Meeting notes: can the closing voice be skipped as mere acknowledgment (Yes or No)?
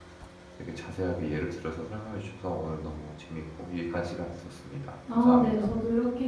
No